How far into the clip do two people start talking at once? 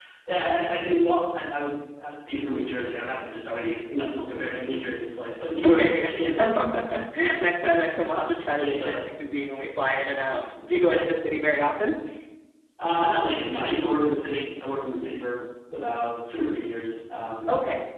5.6 s

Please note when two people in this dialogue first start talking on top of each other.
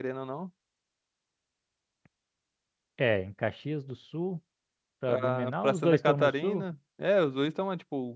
5.1 s

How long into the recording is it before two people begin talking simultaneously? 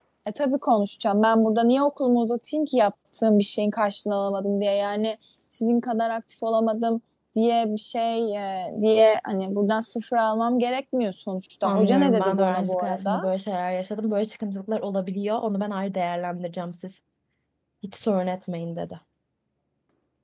11.6 s

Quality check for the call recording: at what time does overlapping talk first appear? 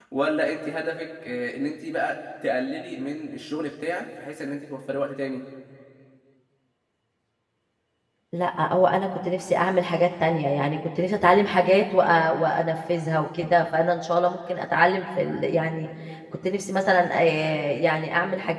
none

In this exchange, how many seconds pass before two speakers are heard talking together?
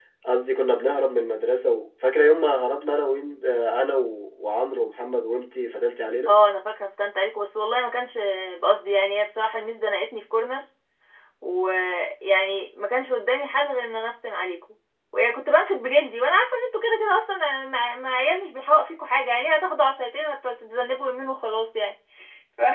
none

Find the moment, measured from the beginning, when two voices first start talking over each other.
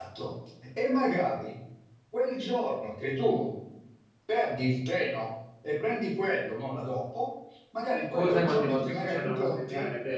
8.1 s

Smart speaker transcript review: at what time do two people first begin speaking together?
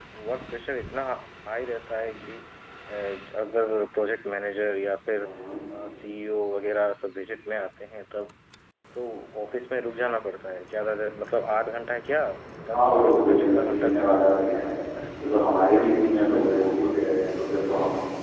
12.7 s

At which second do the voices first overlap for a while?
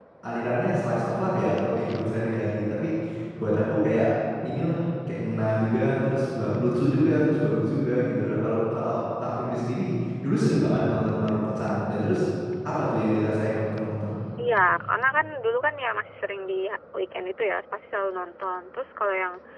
none

